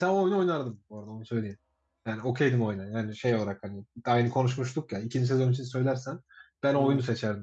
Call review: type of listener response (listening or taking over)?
listening